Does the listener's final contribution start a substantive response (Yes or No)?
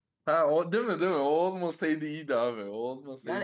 Yes